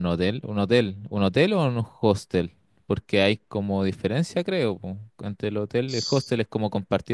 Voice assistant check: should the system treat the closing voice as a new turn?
No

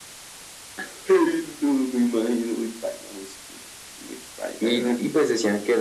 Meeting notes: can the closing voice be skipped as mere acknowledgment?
No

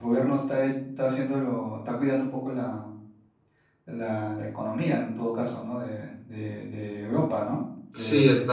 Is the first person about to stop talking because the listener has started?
Yes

